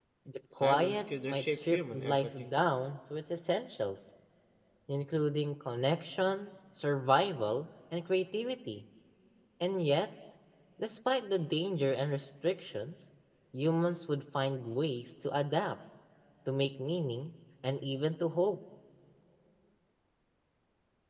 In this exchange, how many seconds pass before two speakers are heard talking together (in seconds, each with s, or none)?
0.6 s